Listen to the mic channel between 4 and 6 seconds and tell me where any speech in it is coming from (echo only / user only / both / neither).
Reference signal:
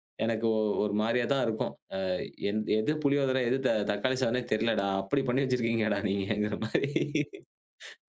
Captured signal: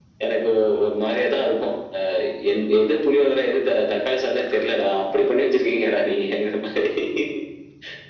echo only